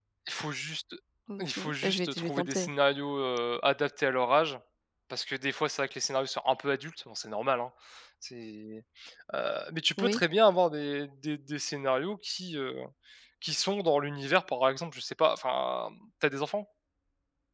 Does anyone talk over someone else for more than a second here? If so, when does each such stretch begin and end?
1.4-2.7

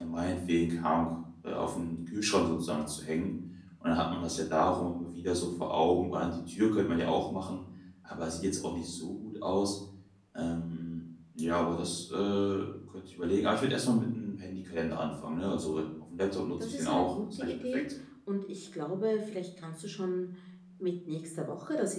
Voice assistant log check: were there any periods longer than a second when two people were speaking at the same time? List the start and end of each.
16.6-17.8

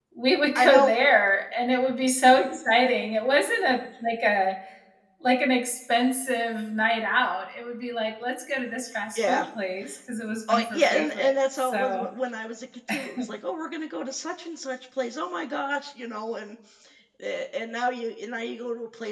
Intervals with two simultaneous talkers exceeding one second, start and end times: 10.5-12.1

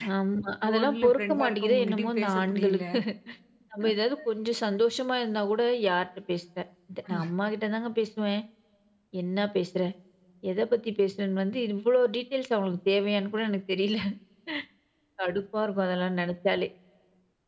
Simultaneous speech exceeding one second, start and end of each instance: 0.7-2.8

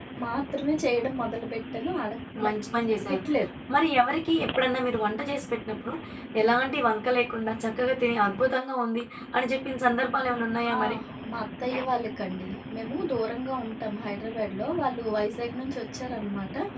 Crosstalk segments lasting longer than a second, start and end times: none

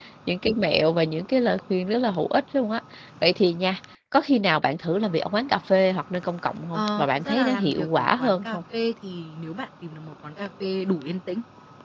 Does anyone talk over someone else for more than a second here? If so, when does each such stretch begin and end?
6.7-8.6

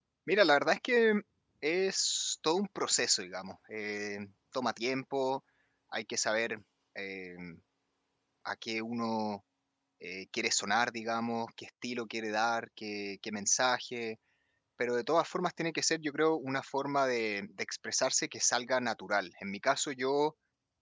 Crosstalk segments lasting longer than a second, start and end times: none

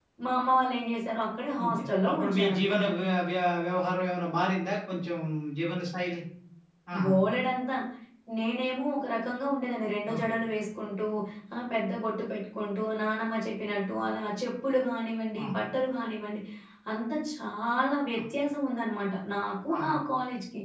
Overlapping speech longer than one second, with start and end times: 1.6-2.8

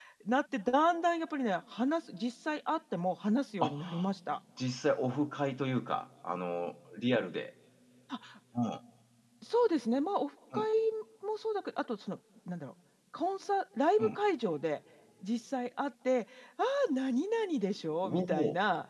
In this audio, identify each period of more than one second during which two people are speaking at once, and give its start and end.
none

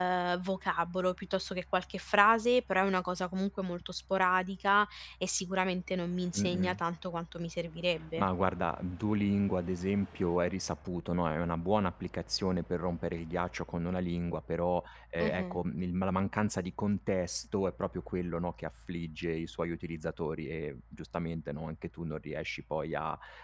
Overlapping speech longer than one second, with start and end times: none

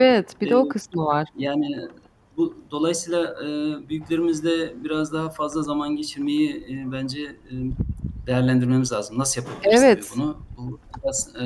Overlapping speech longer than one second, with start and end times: none

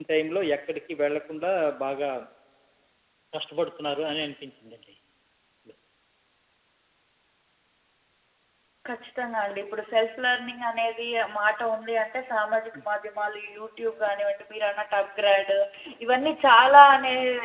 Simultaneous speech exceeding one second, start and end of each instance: none

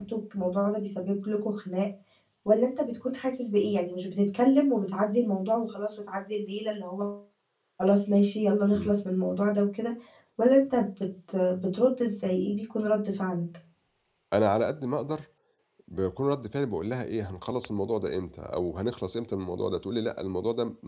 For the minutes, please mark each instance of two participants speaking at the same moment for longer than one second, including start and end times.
none

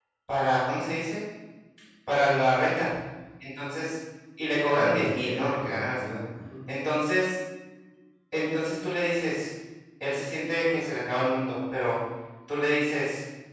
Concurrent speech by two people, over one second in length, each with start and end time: 4.7-6.2

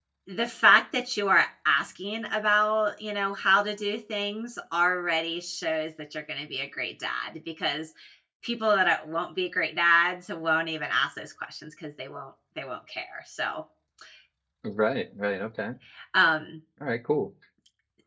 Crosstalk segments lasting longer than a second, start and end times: none

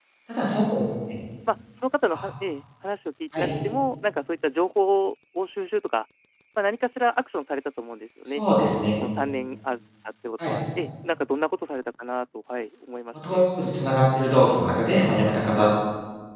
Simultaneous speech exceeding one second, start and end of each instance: none

